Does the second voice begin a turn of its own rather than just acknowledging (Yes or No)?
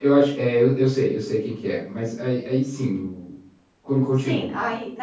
Yes